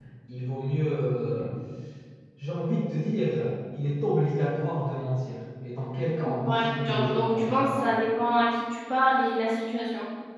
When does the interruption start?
6 s

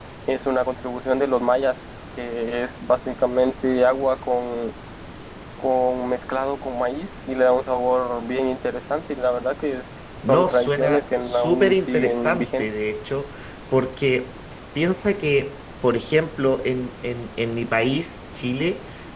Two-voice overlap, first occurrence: 10 s

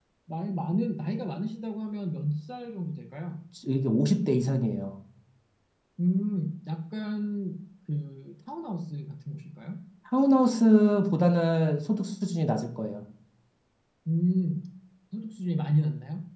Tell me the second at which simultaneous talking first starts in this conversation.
none

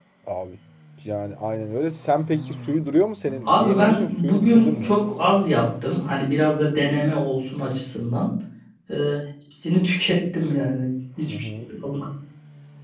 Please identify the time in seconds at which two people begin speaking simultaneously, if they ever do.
3 s

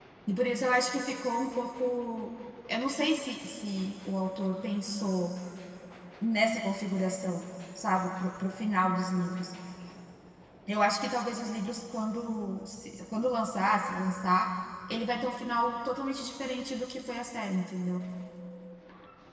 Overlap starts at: none

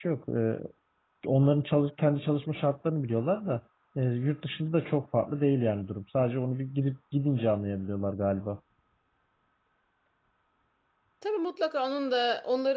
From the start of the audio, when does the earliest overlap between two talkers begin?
none

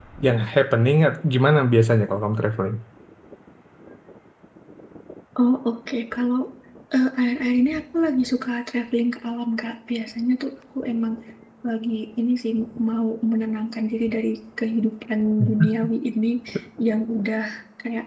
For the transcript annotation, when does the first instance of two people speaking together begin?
none

